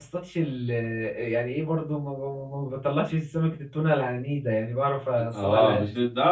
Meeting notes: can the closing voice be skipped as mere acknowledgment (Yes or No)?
No